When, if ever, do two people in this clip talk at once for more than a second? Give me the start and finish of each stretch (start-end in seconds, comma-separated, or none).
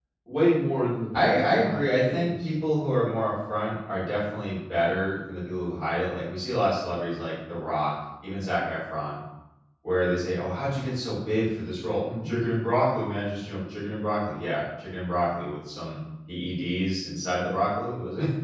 1.1-2.5